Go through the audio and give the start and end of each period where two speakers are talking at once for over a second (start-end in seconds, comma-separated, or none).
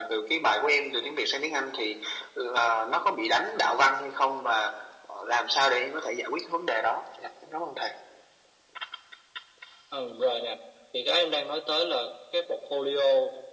none